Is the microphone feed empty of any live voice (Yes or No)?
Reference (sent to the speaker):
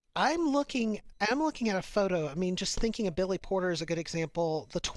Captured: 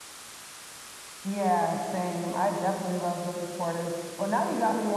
No